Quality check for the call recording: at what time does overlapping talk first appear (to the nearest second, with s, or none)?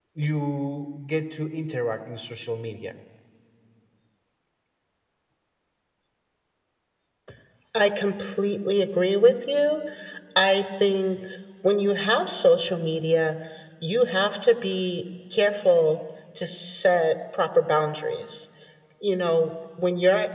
none